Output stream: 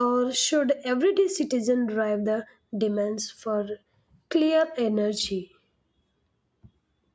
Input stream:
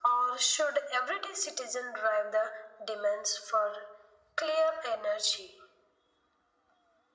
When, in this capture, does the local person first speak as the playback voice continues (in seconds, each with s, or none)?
none